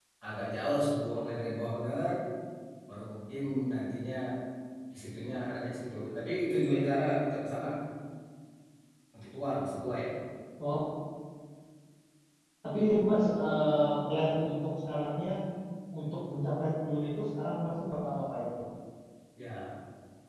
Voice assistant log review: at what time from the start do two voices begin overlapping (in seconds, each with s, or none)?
none